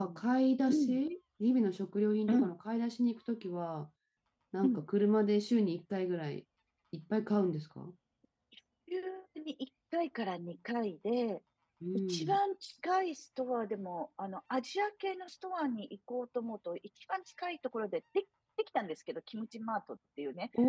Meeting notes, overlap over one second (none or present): none